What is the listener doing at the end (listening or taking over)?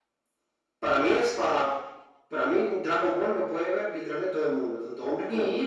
taking over